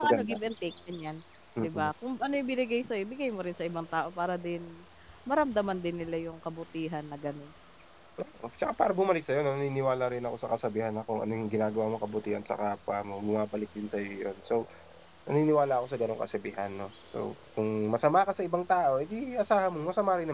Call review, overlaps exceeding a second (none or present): none